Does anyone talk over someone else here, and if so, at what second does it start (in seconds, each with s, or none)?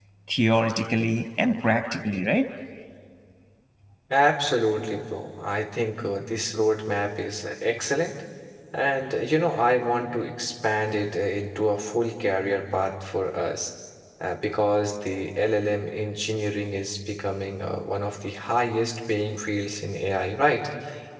none